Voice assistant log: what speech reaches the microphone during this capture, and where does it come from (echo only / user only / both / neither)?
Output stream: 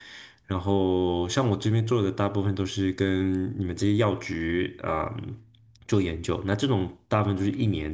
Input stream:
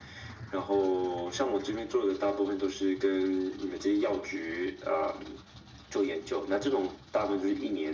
echo only